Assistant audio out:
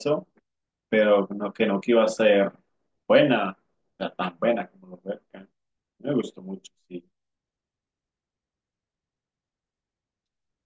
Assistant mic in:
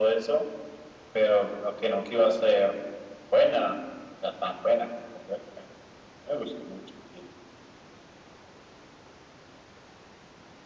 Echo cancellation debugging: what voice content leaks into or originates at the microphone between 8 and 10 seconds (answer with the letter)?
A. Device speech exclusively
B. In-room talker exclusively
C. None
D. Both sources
C